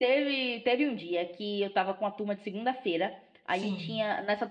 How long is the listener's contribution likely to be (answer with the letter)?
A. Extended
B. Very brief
B